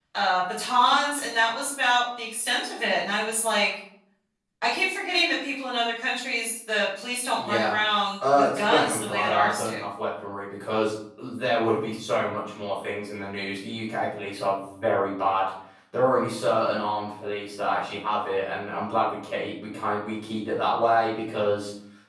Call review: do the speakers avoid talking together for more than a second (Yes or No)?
No